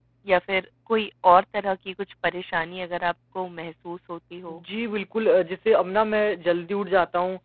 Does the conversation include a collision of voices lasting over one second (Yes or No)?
No